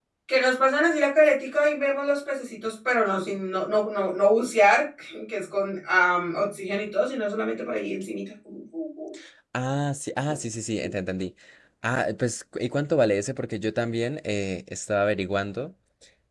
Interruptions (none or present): none